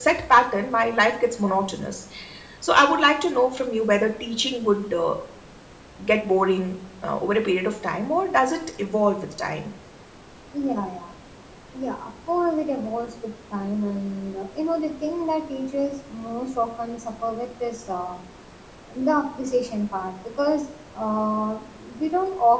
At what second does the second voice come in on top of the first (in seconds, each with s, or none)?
none